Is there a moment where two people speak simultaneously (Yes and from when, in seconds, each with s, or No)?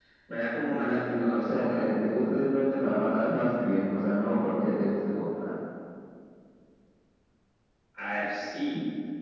Yes, from 0.7 s